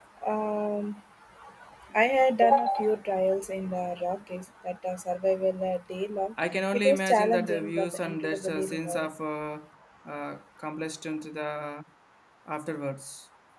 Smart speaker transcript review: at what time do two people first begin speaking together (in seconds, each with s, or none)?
6.7 s